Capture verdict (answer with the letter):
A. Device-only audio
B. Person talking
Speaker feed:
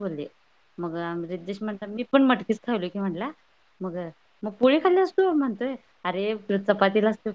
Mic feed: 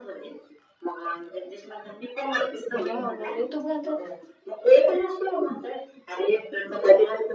B